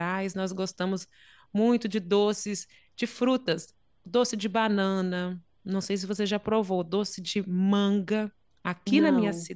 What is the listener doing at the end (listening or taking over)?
listening